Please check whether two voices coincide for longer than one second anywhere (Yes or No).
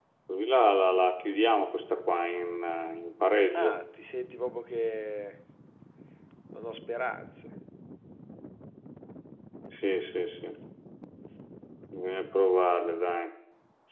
No